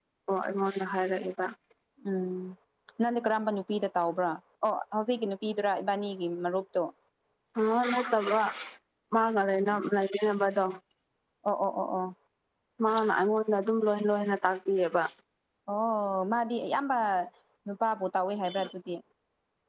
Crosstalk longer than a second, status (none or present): none